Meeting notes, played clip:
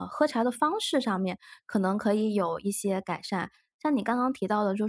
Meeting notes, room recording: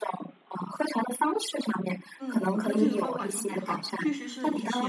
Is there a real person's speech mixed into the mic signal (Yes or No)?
Yes